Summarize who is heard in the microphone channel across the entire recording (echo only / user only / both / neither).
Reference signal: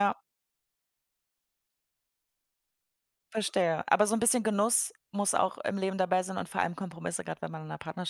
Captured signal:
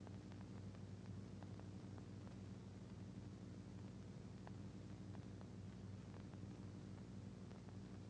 neither